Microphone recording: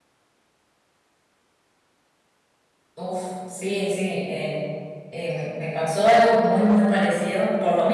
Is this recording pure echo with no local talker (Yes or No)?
No